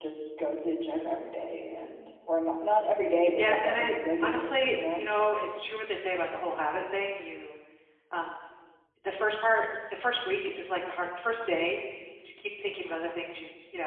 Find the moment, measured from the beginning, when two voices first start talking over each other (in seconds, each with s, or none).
3.4 s